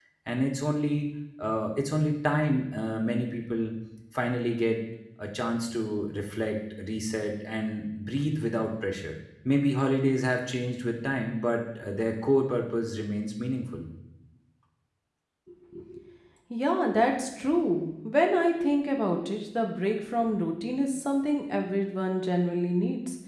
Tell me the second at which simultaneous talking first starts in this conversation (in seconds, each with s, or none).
none